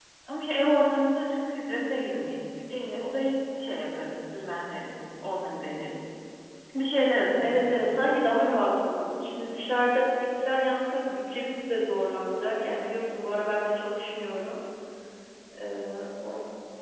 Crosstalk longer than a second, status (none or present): none